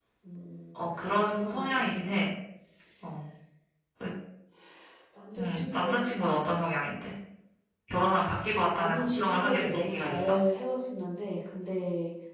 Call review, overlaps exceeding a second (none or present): present